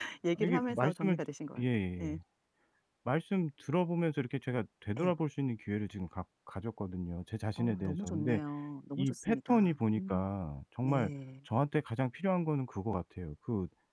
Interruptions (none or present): present